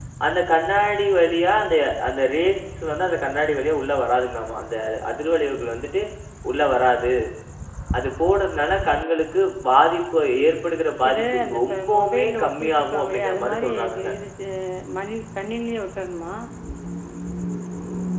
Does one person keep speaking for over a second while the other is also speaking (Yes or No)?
Yes